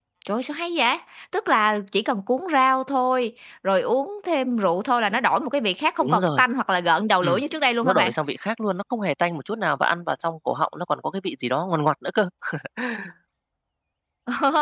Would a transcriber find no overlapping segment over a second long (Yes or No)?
Yes